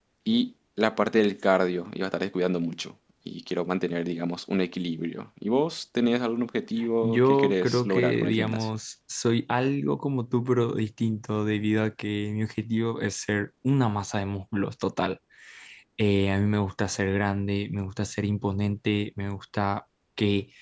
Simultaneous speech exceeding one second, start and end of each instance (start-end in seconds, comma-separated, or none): 7.0-8.7